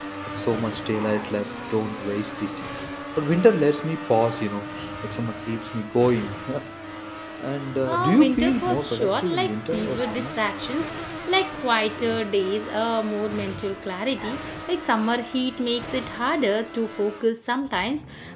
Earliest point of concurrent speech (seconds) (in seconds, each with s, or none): 7.9 s